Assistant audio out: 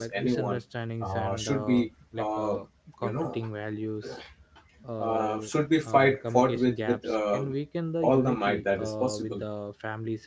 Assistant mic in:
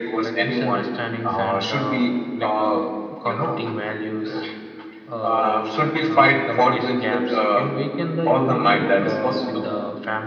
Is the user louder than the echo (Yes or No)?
No